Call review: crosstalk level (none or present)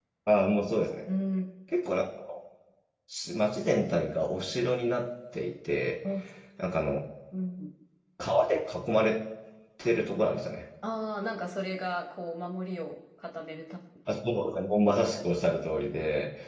none